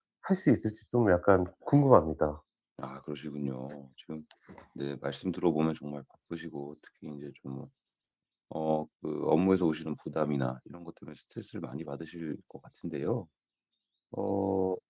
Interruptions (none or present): none